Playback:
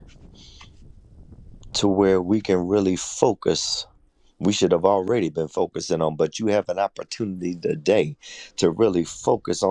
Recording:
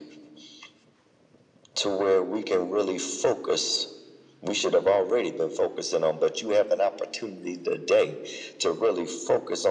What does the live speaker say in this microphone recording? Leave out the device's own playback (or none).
none